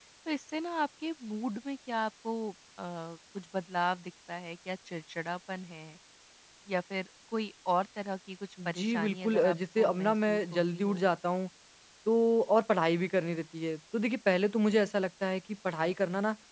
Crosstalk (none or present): present